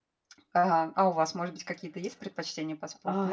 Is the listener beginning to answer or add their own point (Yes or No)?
Yes